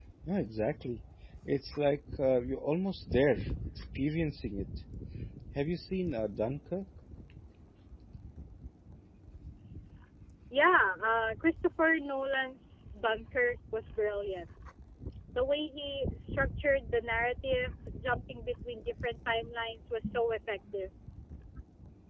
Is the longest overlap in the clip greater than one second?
No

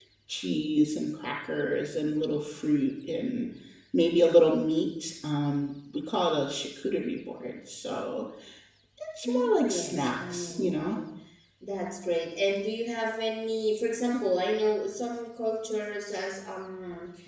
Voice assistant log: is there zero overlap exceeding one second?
No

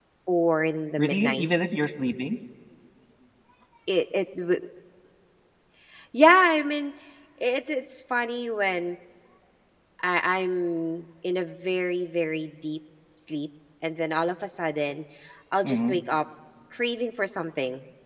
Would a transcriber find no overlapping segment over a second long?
Yes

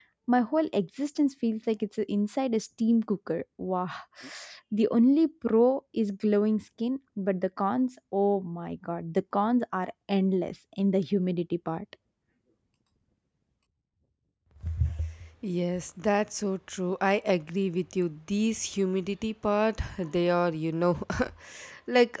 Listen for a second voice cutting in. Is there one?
No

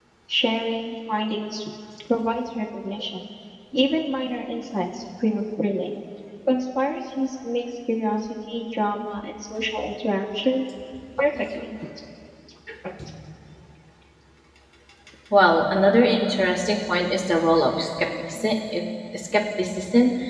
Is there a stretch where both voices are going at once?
No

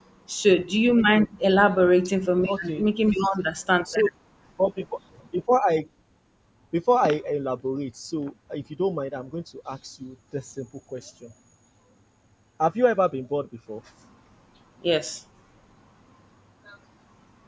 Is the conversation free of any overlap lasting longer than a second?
Yes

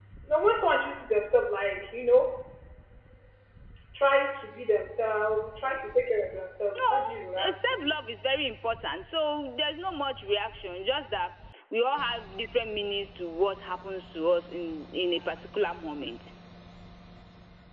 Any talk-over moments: Yes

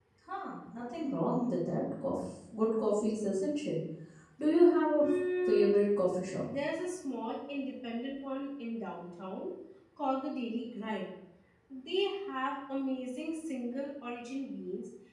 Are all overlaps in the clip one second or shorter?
Yes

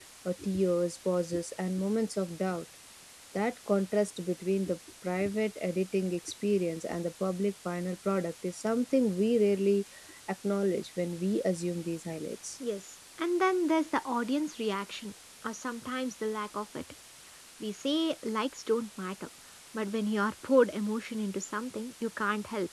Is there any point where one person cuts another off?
No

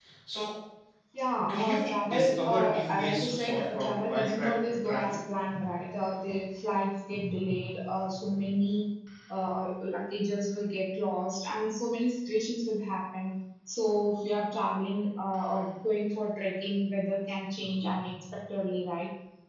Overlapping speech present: Yes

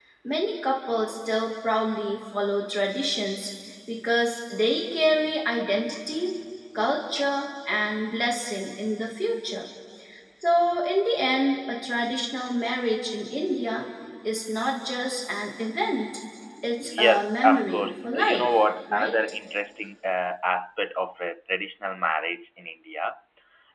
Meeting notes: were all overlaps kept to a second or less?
No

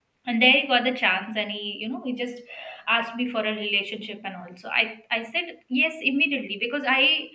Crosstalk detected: No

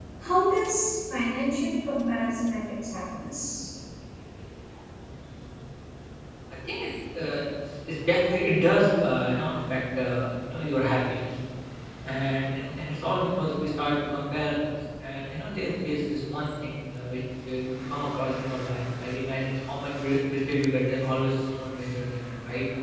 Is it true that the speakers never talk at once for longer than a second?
Yes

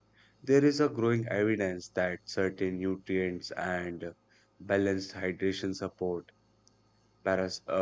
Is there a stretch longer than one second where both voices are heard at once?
No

